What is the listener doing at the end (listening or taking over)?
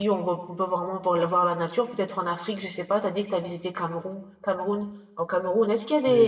listening